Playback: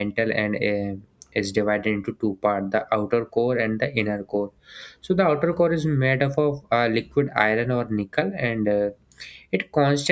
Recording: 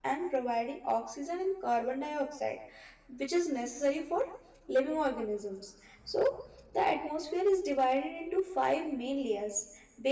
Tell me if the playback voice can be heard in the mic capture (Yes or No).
No